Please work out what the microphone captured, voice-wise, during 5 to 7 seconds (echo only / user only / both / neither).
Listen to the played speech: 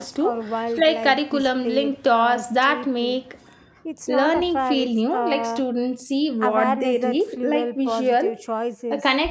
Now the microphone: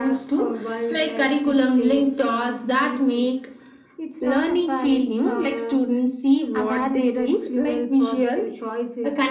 echo only